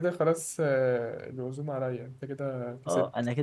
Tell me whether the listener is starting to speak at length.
Yes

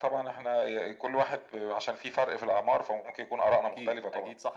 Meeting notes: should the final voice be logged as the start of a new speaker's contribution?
Yes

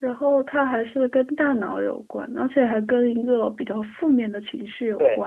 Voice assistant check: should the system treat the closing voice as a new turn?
Yes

